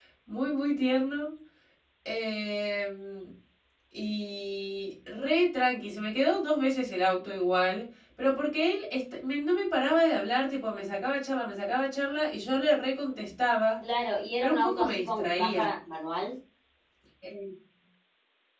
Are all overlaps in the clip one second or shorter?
No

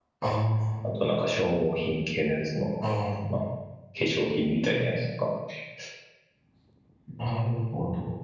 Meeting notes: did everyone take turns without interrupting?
Yes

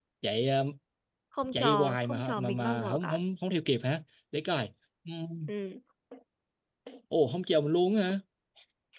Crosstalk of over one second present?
Yes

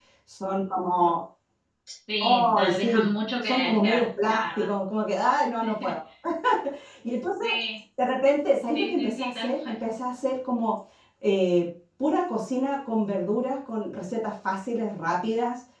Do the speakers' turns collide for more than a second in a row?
Yes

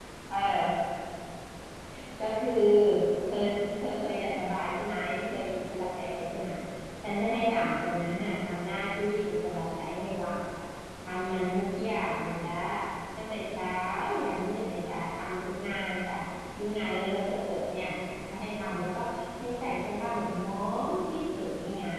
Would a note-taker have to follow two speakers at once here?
No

